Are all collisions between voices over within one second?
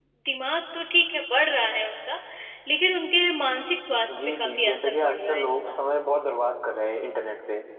No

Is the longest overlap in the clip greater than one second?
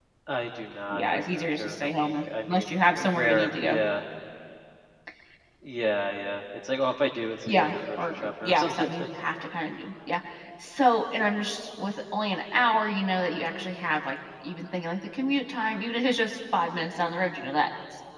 Yes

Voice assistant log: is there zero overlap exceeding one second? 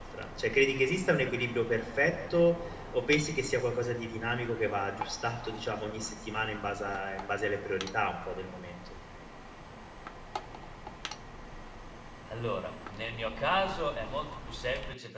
Yes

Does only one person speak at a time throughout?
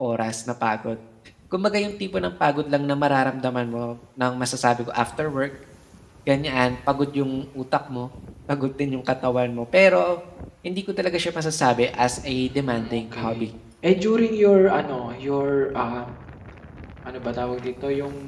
No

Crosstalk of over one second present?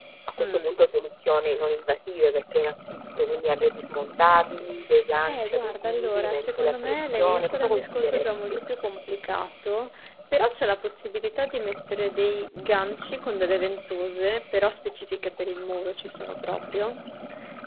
Yes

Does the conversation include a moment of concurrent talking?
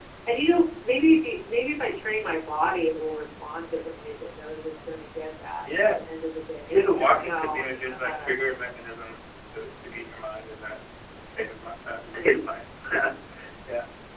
Yes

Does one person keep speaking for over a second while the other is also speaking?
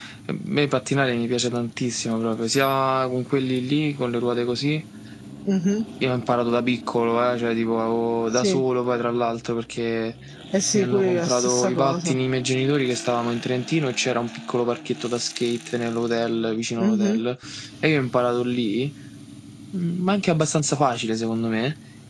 Yes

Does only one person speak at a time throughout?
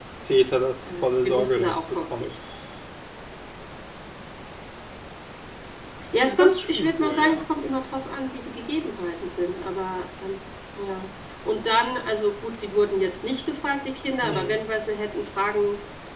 No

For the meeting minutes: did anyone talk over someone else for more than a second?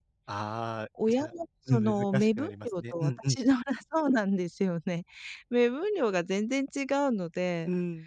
Yes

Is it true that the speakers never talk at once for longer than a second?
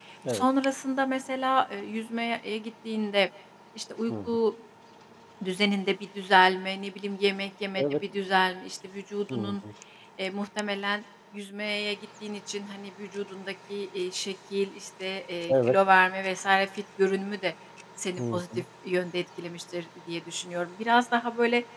Yes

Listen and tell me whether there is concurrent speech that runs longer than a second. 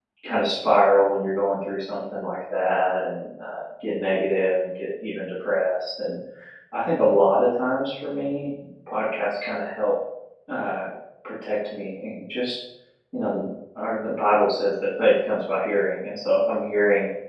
No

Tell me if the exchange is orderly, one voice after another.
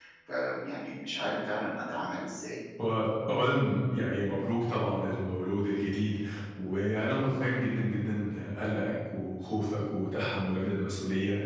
Yes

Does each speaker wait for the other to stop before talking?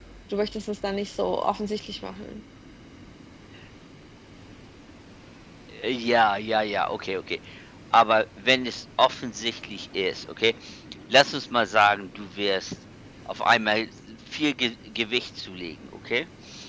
Yes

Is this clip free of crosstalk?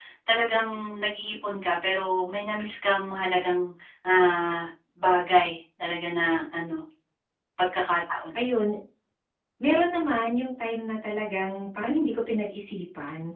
Yes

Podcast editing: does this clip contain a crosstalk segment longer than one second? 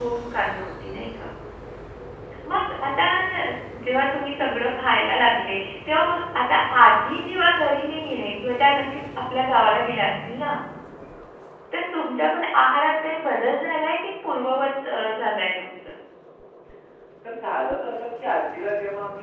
No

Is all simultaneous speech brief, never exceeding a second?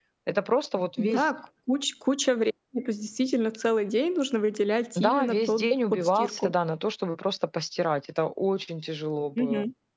No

